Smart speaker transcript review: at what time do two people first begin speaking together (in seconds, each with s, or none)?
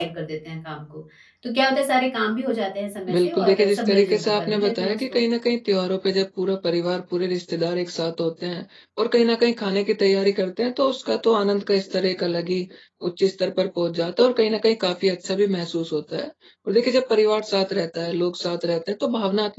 3.1 s